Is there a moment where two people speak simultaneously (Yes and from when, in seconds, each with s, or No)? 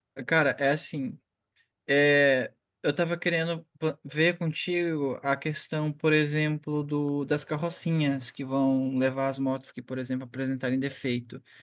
No